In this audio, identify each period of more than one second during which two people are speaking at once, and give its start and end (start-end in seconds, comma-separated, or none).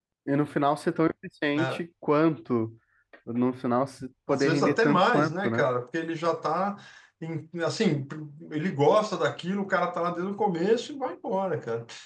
4.3-5.7